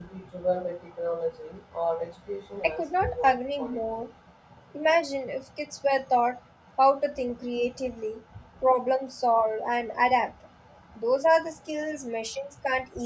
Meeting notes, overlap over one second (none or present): present